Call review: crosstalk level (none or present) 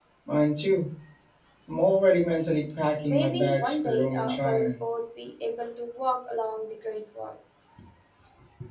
present